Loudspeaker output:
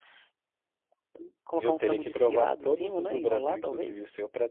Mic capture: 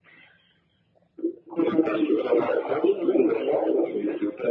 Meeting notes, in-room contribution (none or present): none